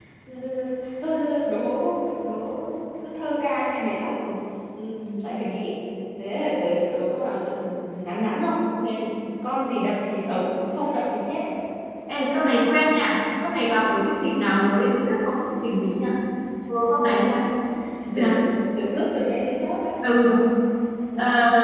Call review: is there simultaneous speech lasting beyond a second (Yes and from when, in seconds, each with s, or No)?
No